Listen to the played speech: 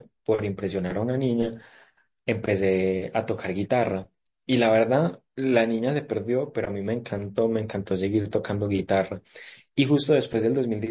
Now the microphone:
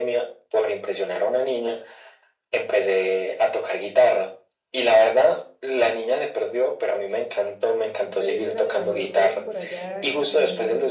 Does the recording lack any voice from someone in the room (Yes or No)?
No